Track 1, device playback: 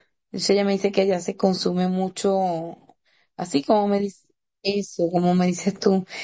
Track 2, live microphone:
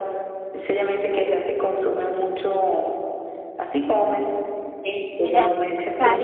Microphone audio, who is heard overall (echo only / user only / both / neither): both